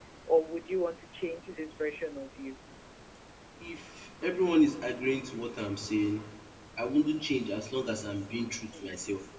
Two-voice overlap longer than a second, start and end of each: none

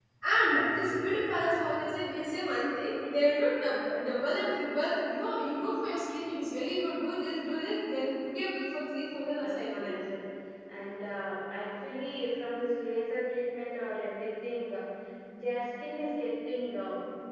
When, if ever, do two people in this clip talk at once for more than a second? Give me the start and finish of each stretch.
none

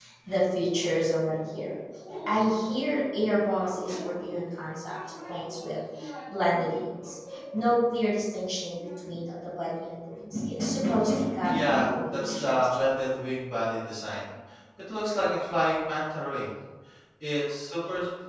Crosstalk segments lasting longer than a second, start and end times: 11.5-12.8

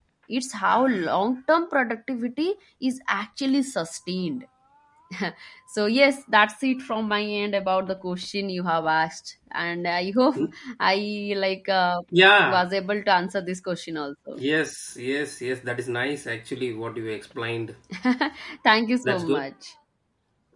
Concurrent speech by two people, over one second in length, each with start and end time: none

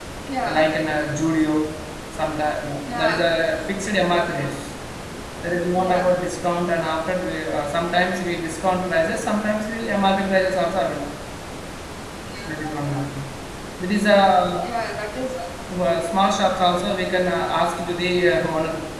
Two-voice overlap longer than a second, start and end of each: none

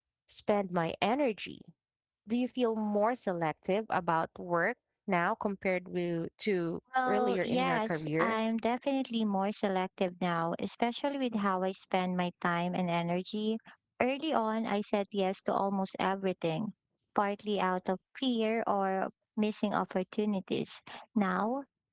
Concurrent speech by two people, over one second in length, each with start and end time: 7.0-8.4

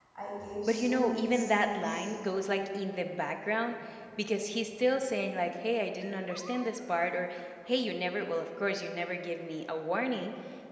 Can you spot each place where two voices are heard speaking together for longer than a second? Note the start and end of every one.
0.7-2.1

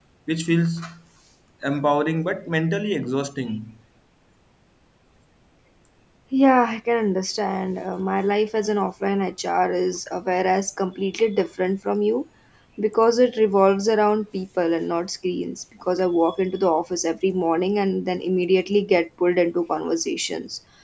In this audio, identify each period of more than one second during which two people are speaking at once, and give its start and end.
none

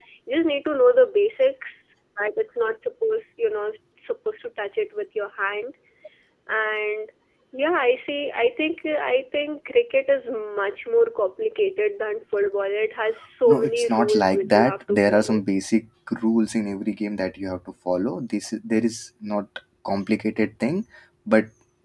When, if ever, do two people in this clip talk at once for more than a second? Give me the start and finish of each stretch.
13.5-15.4

